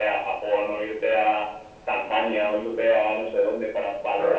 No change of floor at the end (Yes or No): No